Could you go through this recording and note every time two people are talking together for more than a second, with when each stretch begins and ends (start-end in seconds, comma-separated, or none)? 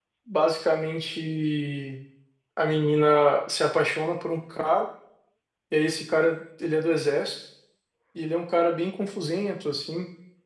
none